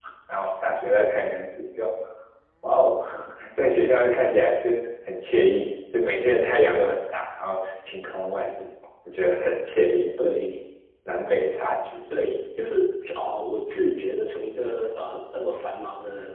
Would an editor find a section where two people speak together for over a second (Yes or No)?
No